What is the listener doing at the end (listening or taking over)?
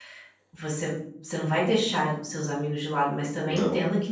listening